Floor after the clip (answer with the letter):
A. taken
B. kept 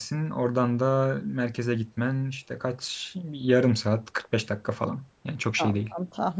A